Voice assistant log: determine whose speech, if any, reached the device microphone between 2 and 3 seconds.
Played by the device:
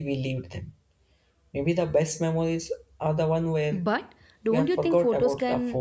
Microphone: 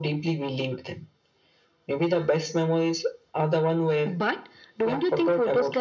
echo only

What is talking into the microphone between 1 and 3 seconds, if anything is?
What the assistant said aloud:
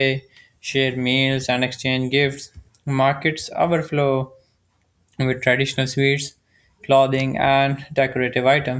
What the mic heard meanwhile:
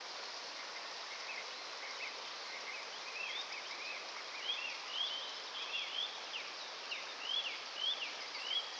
neither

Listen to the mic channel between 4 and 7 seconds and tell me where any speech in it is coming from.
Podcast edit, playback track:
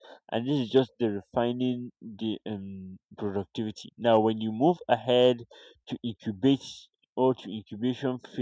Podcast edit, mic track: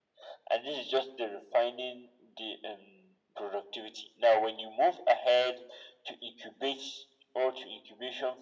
echo only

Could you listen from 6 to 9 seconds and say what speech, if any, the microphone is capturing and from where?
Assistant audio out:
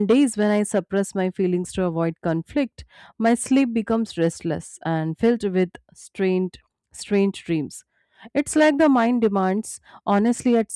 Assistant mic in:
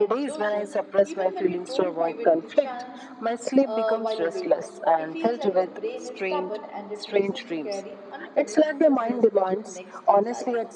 both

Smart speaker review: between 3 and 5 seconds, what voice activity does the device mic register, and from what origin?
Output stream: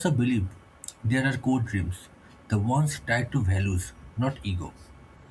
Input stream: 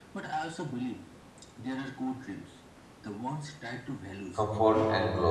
both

